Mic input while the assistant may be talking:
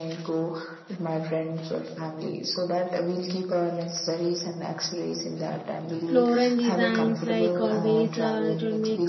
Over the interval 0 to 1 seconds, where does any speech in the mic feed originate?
echo only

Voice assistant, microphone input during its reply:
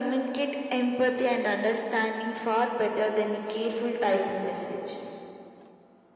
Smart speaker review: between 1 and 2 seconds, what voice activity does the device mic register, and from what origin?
echo only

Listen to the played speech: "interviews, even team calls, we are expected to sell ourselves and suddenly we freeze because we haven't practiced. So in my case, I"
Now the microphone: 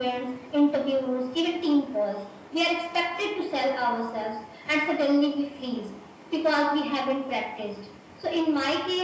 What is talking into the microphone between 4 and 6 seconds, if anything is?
echo only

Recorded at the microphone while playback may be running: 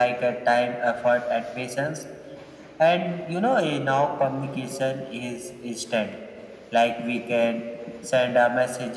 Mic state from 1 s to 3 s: echo only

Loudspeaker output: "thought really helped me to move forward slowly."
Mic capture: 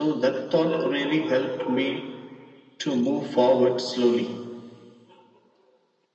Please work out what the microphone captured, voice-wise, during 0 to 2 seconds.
echo only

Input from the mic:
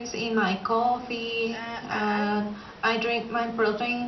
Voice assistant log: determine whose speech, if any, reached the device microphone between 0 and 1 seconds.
echo only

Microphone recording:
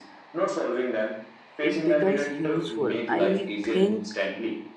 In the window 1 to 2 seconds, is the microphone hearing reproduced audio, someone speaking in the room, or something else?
both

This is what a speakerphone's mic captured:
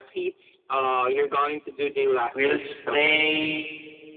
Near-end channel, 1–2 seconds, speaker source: echo only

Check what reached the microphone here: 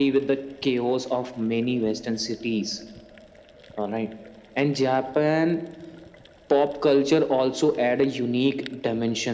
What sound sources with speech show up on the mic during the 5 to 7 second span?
echo only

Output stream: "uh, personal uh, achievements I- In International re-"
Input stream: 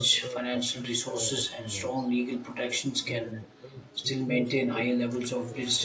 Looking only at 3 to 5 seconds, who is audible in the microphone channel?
both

